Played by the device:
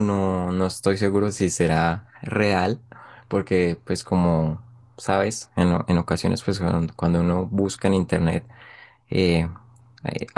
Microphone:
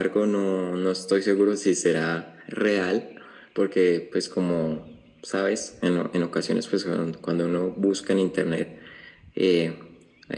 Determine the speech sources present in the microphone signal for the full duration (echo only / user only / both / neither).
echo only